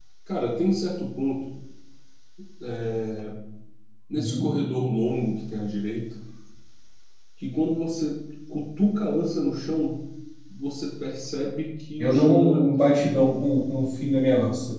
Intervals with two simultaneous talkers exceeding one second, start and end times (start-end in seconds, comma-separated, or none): 12.0-13.4